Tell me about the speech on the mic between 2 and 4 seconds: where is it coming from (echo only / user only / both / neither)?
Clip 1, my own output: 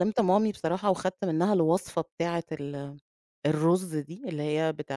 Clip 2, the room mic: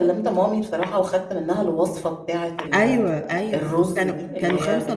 both